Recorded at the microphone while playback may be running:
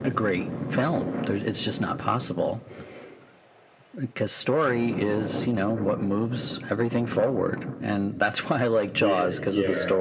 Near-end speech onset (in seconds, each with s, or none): 8.9 s